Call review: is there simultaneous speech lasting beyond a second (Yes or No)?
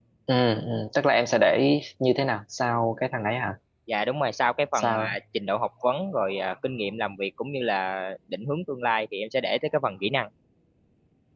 No